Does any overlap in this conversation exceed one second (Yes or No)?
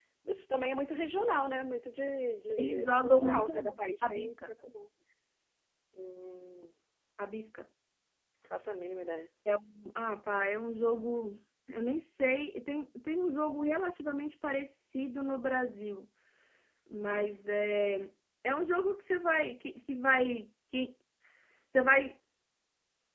Yes